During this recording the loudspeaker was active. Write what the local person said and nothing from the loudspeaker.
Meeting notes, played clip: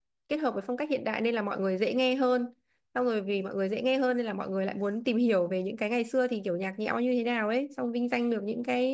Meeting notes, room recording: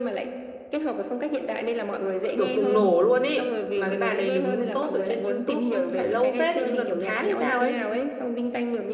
kiểu bùng nổ luôn ấy. Mà cái bài đấy đứng top ở trên YouTube phải lâu phết thì như gần một tháng hay sao ấy.

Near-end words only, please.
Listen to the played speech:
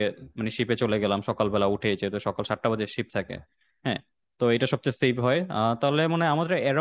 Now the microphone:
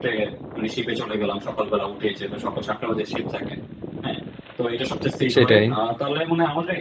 সেটাই

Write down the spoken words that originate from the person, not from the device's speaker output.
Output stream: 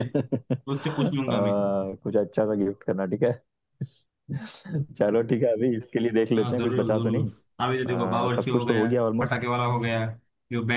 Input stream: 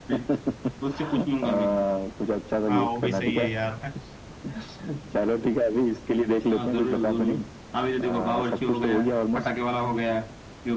हाँ वो भी सही है यार

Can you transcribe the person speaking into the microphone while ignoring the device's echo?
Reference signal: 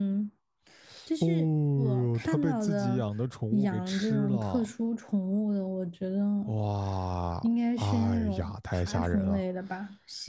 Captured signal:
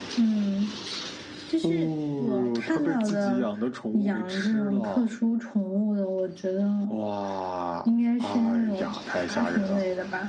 none

